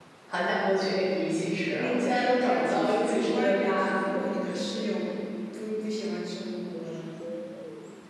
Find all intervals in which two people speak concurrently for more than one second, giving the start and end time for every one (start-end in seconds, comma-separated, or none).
1.8-4.2